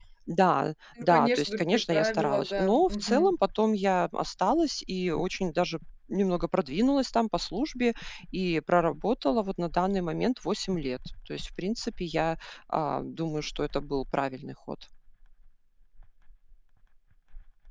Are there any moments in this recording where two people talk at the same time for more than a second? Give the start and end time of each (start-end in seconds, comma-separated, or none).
1.0-3.3